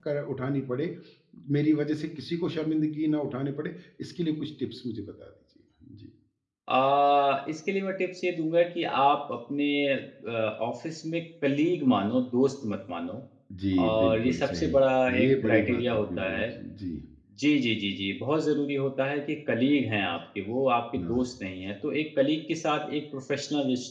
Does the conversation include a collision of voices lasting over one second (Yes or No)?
Yes